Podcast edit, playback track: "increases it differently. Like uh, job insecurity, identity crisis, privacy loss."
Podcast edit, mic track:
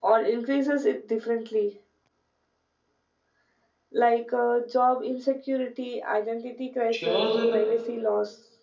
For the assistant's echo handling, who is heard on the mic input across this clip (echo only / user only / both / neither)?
both